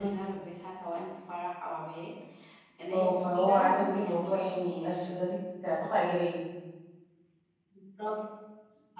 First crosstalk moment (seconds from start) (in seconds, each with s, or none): 2.9 s